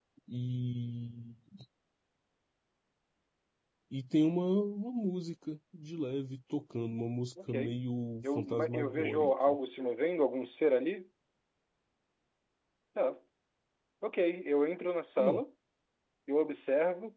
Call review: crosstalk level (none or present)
present